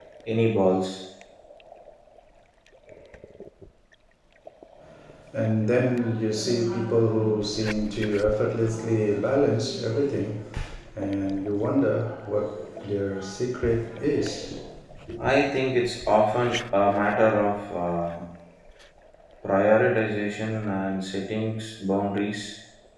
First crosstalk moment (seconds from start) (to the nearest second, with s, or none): none